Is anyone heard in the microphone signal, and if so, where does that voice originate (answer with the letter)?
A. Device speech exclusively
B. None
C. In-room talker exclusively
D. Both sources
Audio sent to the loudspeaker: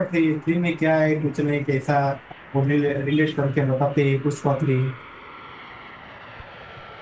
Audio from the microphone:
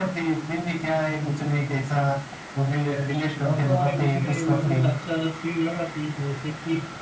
D